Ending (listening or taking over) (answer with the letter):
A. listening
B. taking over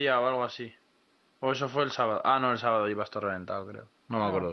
B